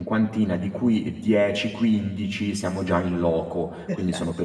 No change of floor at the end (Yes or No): Yes